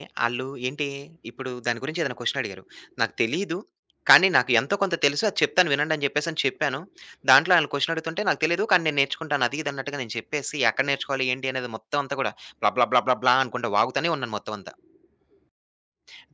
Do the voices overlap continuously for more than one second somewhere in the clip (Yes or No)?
No